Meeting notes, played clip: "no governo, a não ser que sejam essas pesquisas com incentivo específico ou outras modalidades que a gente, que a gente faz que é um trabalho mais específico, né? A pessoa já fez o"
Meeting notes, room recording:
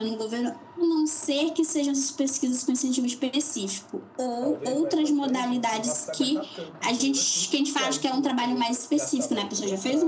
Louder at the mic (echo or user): echo